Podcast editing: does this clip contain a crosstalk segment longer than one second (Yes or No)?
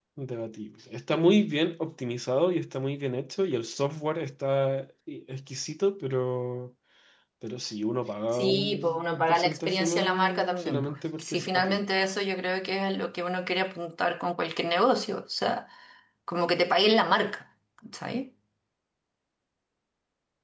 Yes